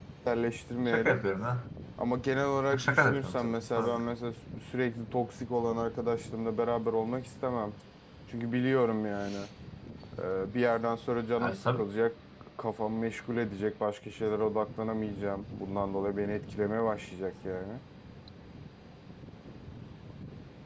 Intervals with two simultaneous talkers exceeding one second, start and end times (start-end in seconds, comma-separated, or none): 2.7-4.0